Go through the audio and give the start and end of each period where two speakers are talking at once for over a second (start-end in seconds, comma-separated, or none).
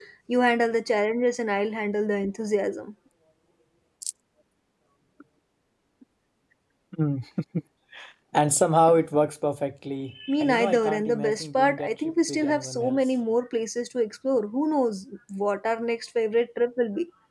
10.4-13.0